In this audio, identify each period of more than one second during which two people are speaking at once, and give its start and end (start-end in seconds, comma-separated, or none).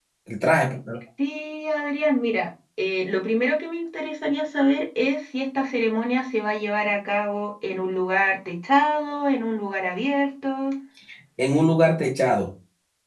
none